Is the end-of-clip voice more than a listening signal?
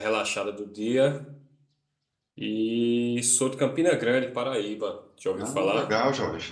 Yes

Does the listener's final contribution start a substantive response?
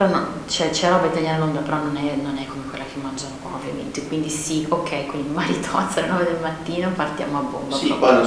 Yes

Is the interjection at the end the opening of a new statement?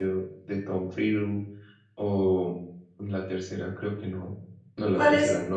Yes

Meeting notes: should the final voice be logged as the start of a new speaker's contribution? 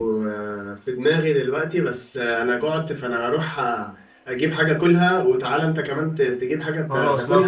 Yes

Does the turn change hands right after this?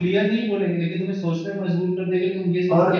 Yes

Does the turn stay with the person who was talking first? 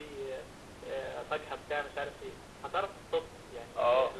No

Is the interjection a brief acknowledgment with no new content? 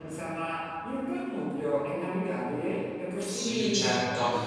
No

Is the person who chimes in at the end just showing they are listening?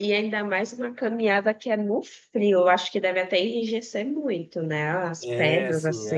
No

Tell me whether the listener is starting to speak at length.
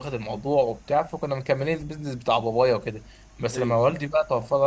No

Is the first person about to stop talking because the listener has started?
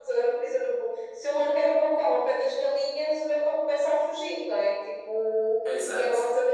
No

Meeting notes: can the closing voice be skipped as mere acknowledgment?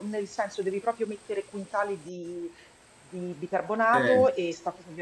Yes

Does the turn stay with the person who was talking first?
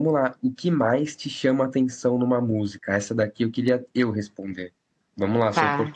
Yes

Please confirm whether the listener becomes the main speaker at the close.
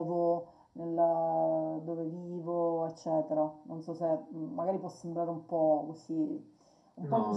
No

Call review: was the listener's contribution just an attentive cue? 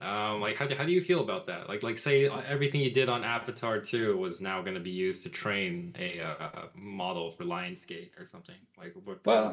No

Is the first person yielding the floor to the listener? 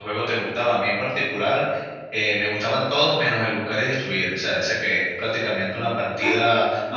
Yes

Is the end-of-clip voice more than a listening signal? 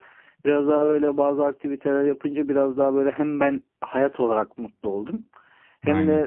No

